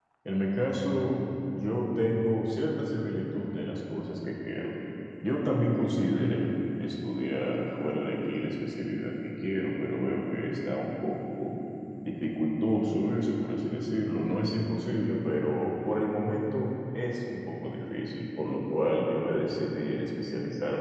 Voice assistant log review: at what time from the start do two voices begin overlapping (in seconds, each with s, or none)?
none